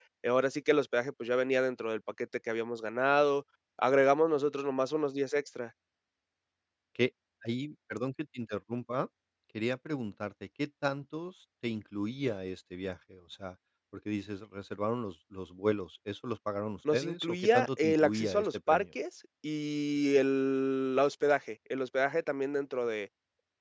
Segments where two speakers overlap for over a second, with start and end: 16.9-18.8

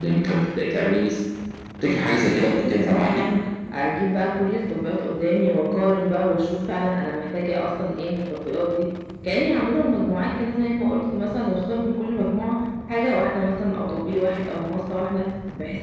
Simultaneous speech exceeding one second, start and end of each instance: 1.8-3.3

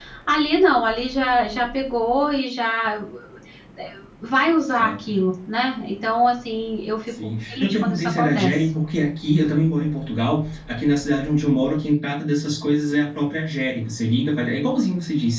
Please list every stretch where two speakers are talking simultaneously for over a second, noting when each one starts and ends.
7.1-8.5

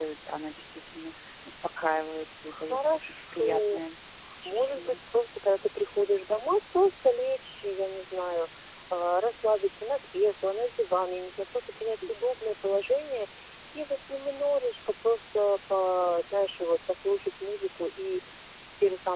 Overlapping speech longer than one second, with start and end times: 2.5-3.8

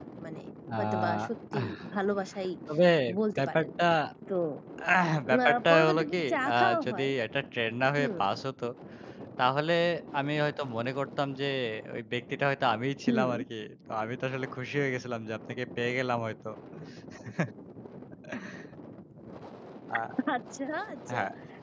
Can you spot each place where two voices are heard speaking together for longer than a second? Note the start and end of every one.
5.4-7.1

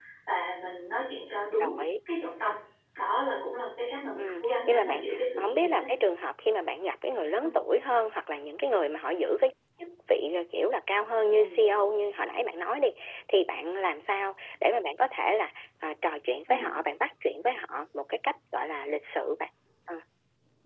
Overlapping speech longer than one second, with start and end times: 4.2-5.8

